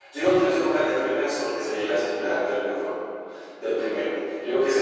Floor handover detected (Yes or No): No